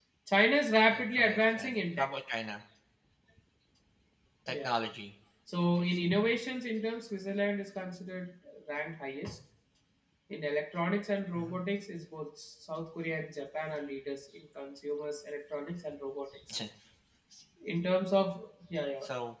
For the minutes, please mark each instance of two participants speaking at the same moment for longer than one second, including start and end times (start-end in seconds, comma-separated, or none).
0.9-2.1